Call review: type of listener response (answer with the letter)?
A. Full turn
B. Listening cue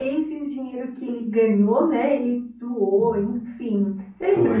A